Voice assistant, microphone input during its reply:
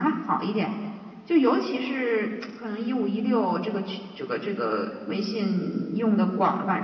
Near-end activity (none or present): none